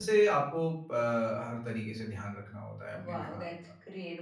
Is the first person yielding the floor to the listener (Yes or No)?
Yes